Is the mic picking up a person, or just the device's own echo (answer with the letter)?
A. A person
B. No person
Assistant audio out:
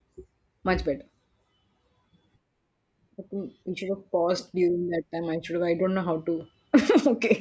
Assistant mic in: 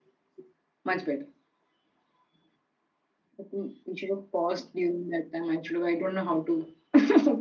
B